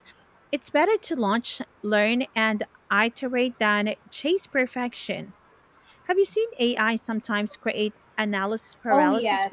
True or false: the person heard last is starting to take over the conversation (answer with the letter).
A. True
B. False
A